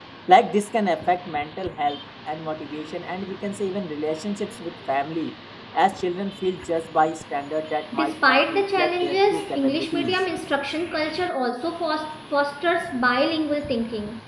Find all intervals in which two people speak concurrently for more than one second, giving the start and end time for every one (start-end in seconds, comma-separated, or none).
7.9-10.1